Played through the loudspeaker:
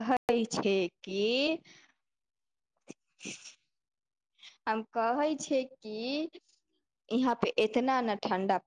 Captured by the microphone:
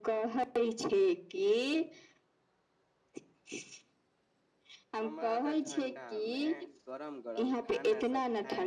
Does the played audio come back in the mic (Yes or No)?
Yes